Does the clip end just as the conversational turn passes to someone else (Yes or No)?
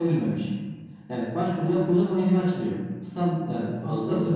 No